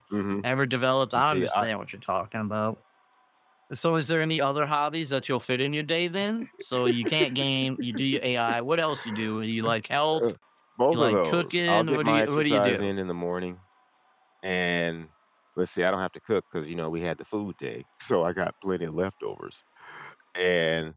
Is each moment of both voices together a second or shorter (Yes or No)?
No